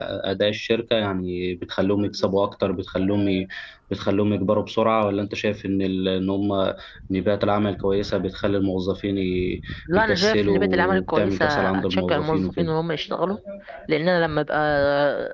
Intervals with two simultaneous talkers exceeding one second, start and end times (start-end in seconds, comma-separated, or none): 9.9-12.7